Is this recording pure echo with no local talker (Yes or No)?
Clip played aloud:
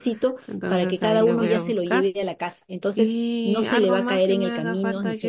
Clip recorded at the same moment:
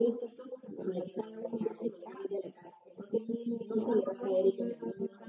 Yes